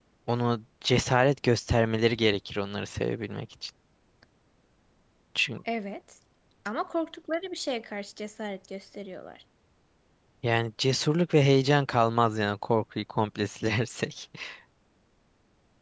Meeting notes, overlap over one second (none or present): none